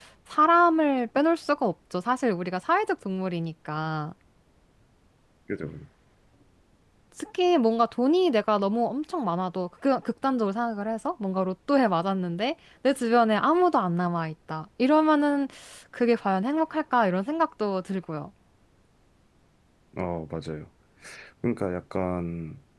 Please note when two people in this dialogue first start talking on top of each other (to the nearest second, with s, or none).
none